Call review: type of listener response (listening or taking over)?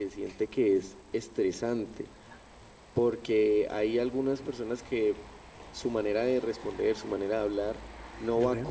listening